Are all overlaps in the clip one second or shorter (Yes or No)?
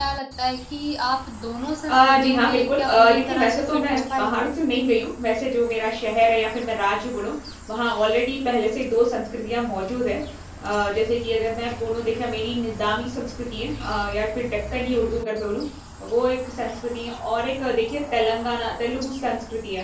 No